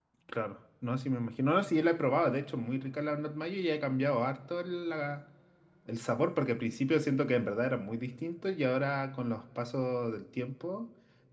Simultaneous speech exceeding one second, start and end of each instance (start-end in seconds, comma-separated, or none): none